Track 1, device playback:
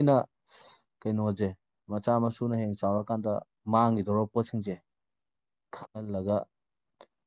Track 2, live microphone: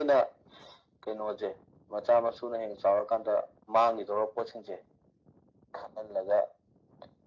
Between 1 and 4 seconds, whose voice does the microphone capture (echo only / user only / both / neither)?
echo only